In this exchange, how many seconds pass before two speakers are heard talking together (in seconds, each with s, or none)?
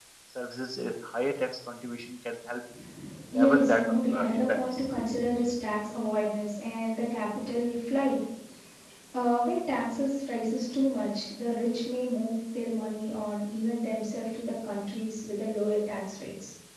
3.3 s